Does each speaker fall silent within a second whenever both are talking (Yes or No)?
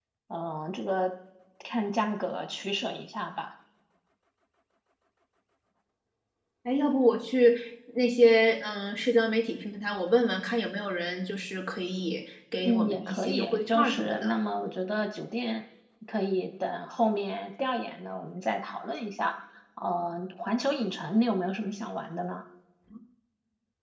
No